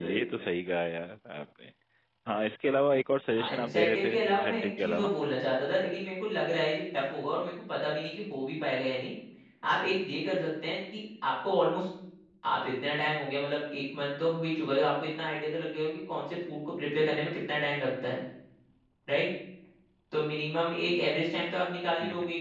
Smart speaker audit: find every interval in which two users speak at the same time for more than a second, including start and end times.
3.5-5.1

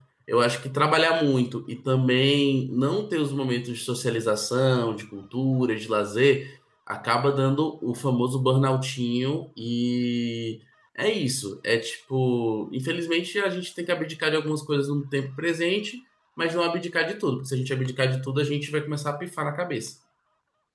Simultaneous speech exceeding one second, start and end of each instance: none

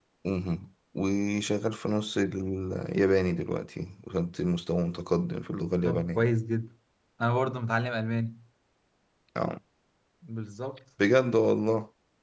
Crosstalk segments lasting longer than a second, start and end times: none

